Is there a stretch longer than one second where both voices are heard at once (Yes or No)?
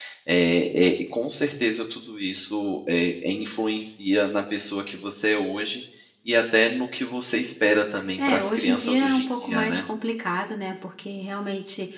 Yes